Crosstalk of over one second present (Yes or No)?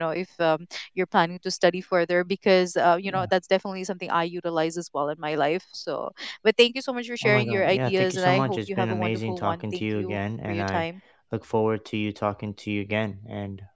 Yes